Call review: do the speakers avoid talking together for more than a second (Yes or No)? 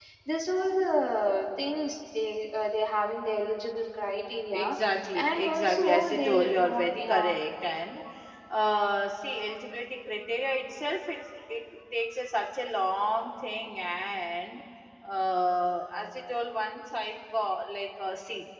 No